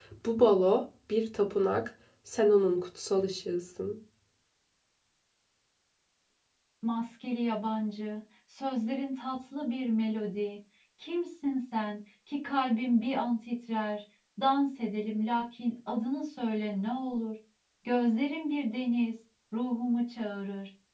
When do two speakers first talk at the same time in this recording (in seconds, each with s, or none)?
none